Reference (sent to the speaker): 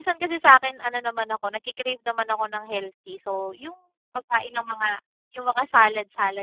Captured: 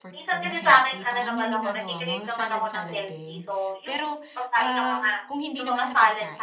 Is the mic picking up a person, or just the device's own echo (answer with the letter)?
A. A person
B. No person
A